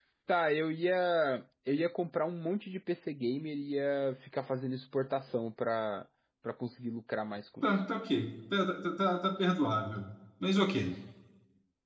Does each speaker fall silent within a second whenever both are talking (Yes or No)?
Yes